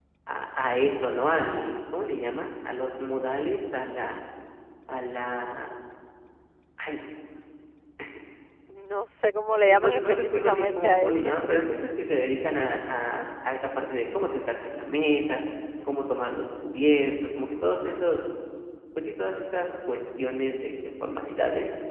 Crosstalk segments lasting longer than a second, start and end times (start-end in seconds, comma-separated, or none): 9.6-11.3